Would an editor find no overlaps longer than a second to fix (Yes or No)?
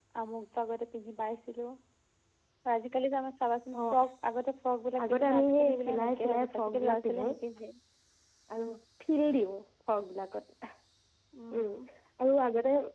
No